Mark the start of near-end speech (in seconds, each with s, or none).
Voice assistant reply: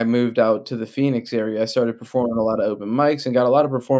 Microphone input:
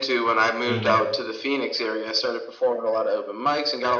0.6 s